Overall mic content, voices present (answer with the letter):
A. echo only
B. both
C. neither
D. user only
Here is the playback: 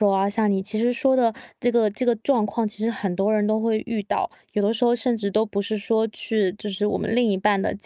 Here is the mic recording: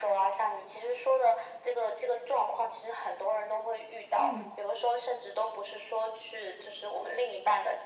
B